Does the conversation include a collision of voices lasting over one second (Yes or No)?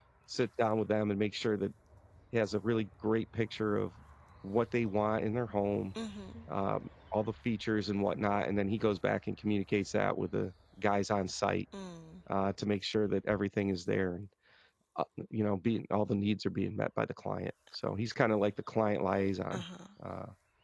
No